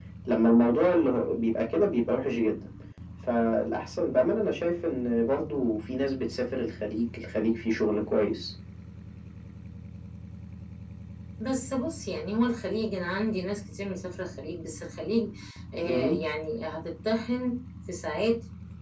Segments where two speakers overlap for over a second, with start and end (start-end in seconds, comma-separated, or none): none